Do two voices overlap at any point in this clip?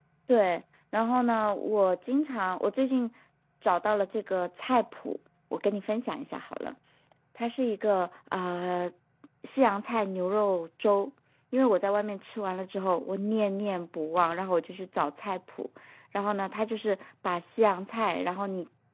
No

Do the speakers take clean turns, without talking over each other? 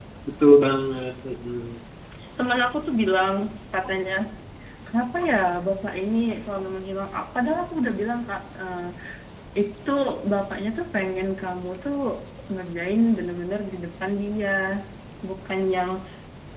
Yes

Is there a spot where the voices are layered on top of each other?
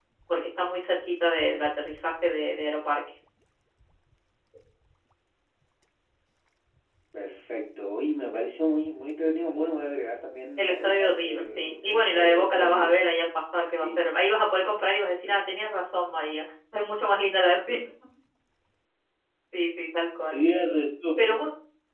Yes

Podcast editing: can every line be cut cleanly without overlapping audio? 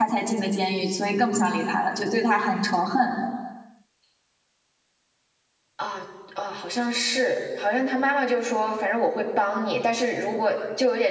Yes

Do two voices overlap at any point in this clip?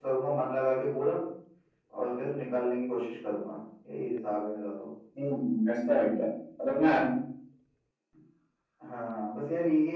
No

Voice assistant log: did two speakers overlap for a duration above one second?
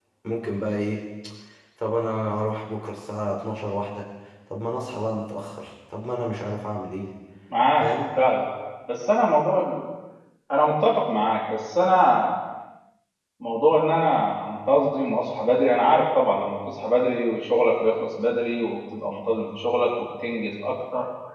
No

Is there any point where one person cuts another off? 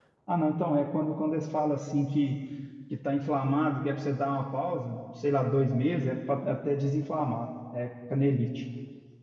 No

